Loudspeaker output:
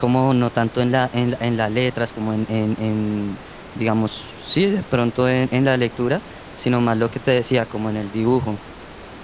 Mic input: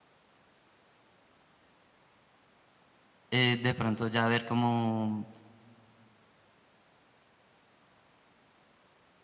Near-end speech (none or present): present